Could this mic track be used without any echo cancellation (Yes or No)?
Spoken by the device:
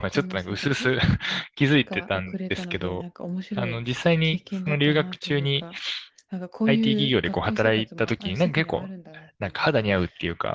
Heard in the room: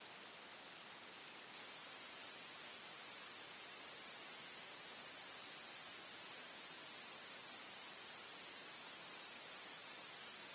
Yes